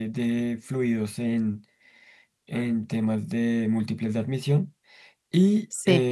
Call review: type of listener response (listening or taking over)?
listening